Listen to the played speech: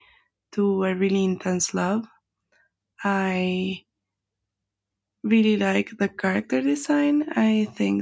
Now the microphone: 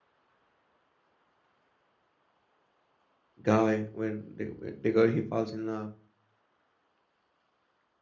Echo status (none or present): none